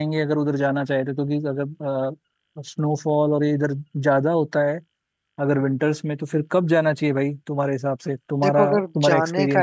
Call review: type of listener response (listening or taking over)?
taking over